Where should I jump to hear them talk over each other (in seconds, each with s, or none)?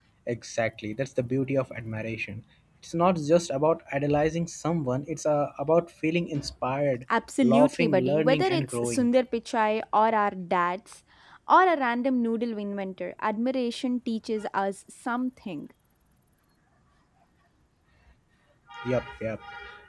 7.4 s